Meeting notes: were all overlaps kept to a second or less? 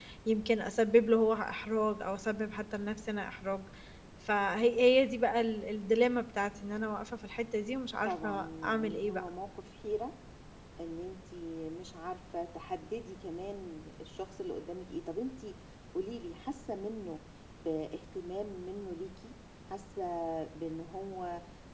No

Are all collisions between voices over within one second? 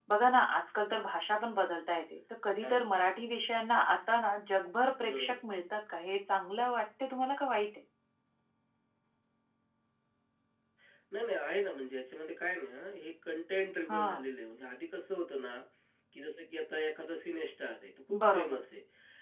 Yes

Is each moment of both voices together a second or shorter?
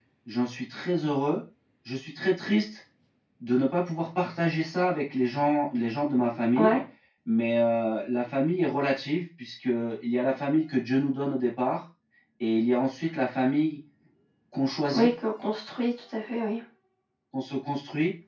Yes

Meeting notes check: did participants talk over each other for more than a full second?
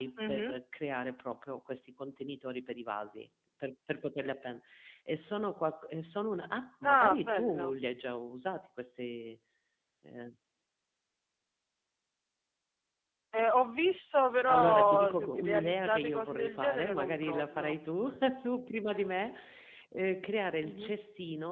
Yes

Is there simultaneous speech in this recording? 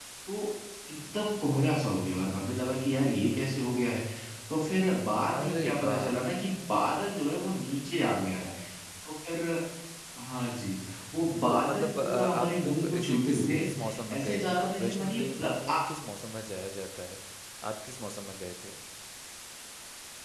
Yes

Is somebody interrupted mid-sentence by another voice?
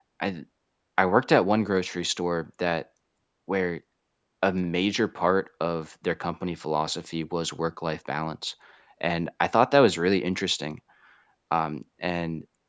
No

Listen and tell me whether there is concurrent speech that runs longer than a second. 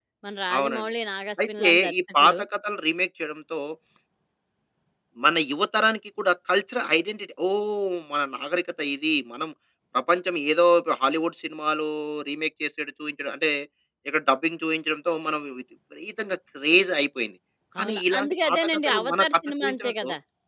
Yes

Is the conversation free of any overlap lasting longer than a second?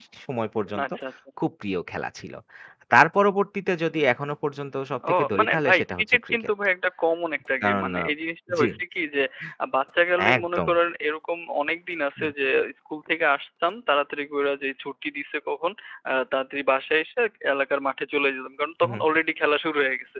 No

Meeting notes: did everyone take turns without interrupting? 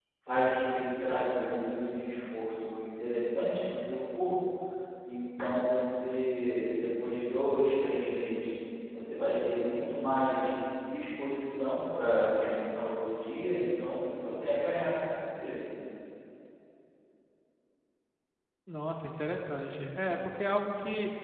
Yes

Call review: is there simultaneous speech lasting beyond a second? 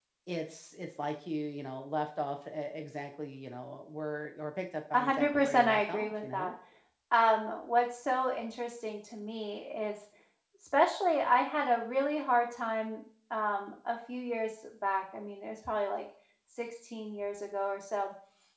Yes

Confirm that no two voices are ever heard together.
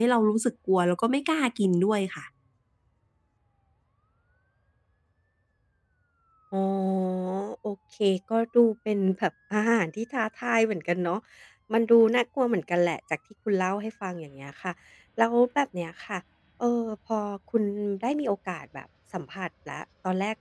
Yes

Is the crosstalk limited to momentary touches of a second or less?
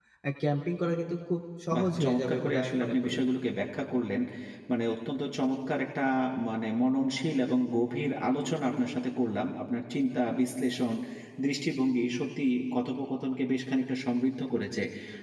No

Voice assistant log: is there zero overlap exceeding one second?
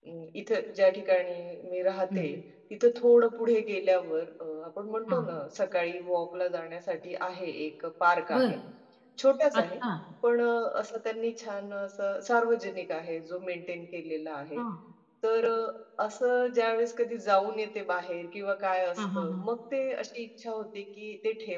Yes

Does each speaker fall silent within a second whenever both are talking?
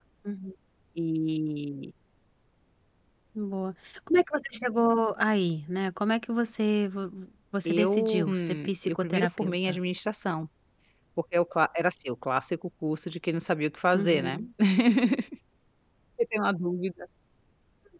No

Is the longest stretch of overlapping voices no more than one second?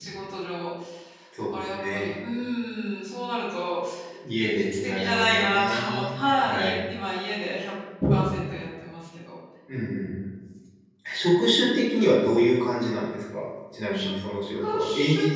No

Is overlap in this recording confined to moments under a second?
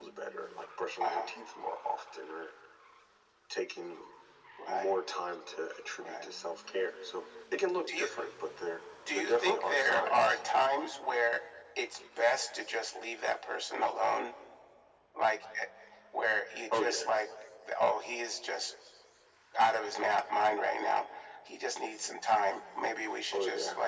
No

